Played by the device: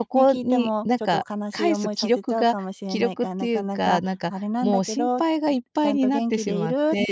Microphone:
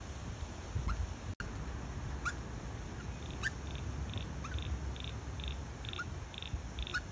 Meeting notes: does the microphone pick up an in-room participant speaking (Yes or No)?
No